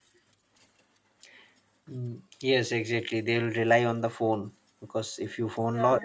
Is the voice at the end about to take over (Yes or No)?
No